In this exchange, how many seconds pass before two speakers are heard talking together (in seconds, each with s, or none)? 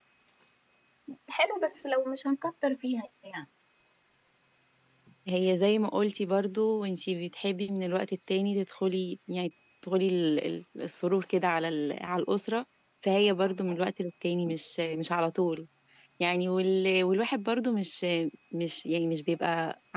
none